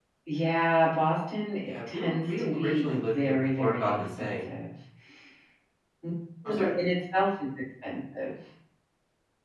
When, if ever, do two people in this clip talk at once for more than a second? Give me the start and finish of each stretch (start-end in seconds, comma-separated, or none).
1.6-4.5